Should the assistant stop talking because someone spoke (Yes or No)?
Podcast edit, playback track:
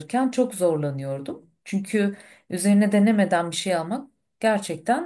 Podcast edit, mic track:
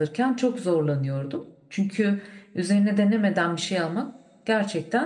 No